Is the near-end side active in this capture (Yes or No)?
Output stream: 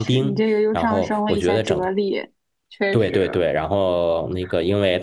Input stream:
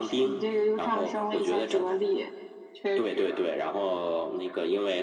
No